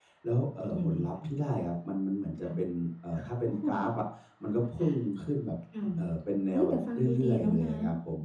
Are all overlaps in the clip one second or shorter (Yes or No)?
No